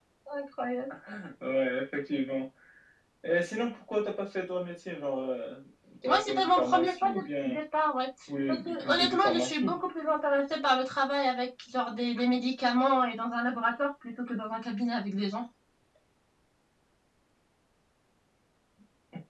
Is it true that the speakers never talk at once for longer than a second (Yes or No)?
No